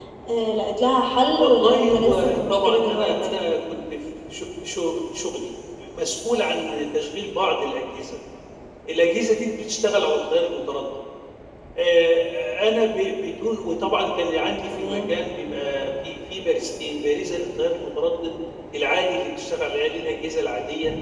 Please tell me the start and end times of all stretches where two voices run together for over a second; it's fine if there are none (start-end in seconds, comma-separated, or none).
1.3-3.4